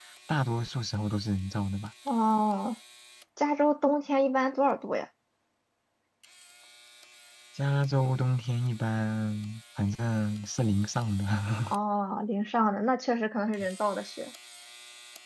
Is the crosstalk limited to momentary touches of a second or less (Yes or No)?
Yes